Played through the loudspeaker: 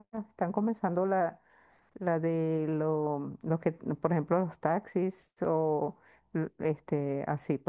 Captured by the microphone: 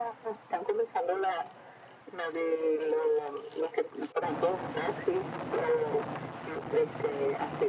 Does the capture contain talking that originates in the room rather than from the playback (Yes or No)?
No